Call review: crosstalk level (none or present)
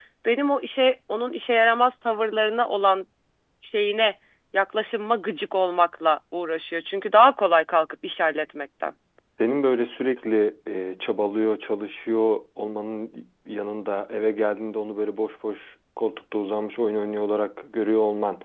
none